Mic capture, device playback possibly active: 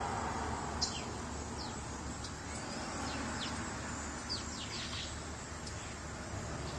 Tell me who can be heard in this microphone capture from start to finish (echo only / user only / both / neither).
neither